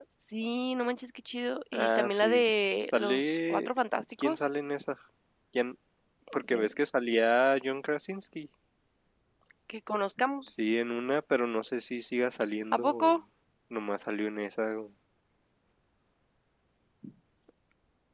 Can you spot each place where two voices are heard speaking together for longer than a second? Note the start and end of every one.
1.7-3.7

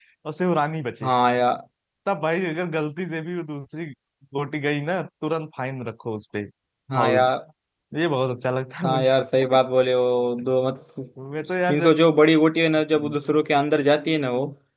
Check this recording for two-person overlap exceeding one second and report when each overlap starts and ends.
none

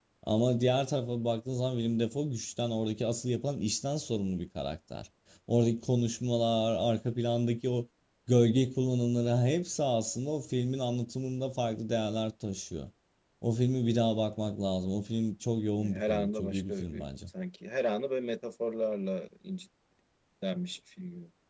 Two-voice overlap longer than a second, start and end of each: 15.9-17.3

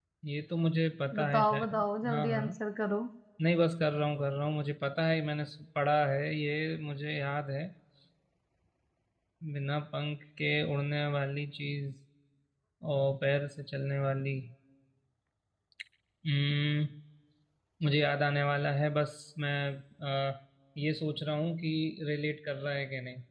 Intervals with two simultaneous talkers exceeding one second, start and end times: 1.2-2.5

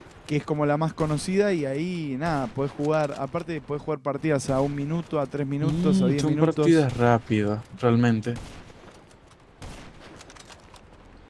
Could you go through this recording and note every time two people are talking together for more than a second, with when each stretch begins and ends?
5.6-6.8

